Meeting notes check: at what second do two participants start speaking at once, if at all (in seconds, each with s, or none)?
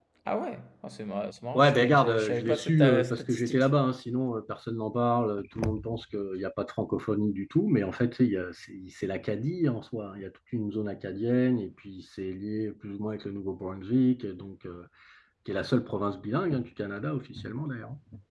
1.5 s